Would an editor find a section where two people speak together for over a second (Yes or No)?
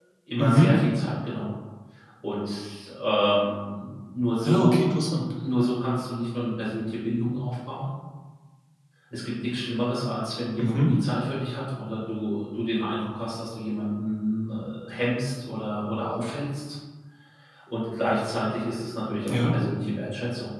No